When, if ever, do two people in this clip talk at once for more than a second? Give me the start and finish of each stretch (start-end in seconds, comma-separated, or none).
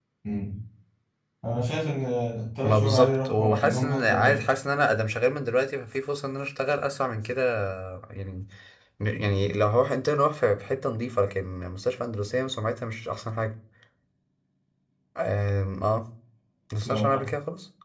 2.6-4.4